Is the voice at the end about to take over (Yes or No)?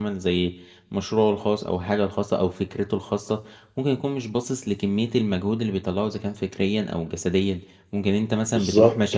No